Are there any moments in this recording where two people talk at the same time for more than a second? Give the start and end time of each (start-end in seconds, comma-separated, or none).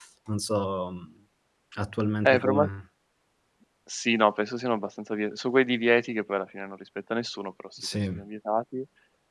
none